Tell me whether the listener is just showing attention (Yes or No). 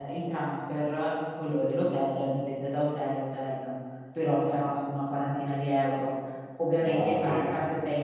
Yes